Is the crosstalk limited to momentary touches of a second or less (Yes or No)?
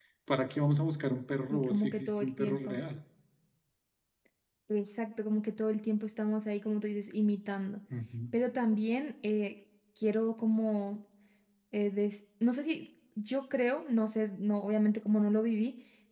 No